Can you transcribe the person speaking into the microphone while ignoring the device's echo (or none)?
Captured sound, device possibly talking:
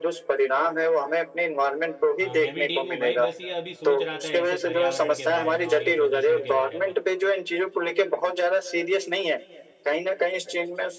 हाँ मैं भी ठीक हूँ भाई बस ये अभी सोच रहा था ऐसे पर्यावरण के बारे में और ये प्रदूषण के बारे में